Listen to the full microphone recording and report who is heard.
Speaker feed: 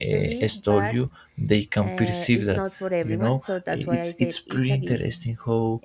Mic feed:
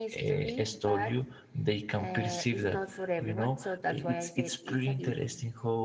echo only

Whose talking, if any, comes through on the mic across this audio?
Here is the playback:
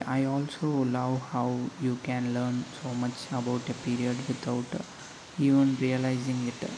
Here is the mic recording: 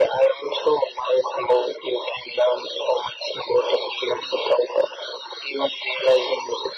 echo only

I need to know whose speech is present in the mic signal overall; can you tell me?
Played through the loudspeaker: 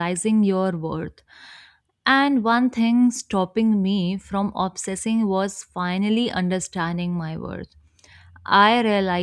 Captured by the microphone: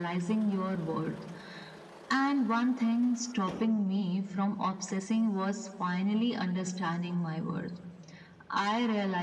echo only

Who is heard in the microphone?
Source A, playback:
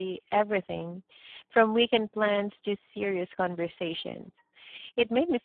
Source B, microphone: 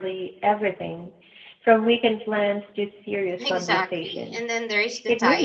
both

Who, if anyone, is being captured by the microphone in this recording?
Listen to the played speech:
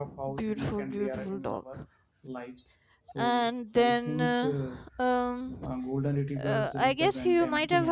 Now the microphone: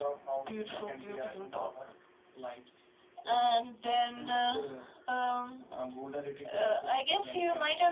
echo only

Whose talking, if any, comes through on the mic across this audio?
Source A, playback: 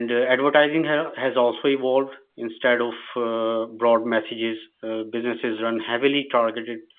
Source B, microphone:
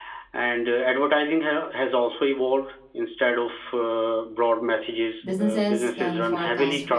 both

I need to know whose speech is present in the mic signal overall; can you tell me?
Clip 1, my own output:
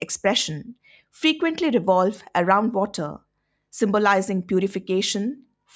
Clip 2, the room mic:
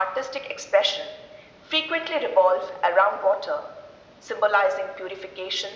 echo only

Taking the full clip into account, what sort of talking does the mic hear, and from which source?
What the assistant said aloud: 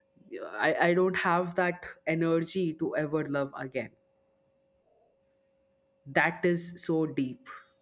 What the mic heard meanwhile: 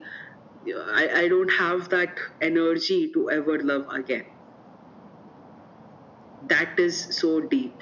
echo only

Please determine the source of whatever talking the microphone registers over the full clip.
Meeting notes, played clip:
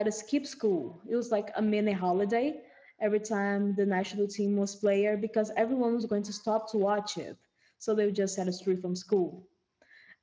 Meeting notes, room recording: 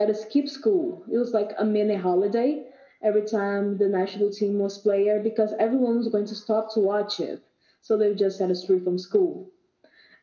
echo only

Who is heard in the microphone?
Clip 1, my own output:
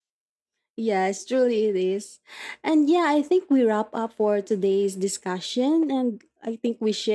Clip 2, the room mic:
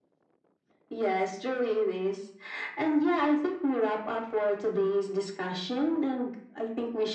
echo only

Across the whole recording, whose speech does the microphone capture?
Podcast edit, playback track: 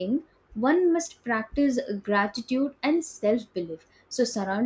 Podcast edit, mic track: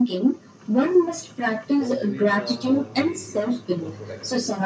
both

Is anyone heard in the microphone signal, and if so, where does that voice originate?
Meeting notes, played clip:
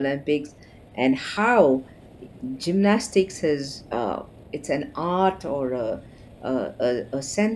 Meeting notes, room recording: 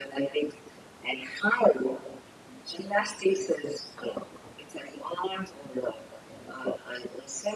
echo only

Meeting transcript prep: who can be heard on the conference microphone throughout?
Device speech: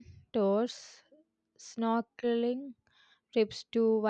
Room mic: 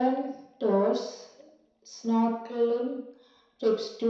echo only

